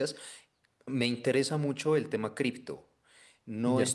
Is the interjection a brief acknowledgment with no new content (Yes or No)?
Yes